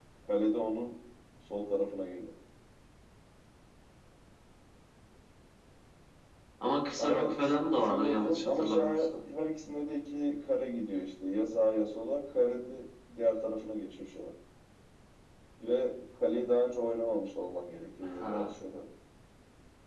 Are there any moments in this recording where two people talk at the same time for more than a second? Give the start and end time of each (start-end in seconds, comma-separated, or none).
7.0-9.1